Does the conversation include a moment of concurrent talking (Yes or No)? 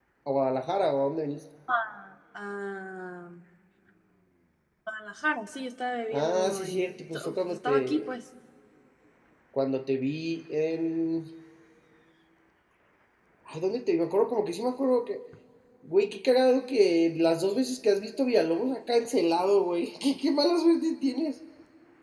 Yes